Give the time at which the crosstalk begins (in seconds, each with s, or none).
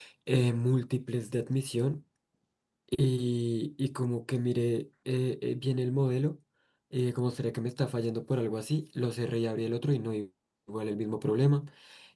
none